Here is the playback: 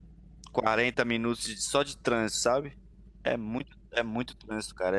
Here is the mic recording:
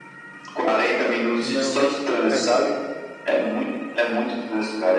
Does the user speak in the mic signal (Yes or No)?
Yes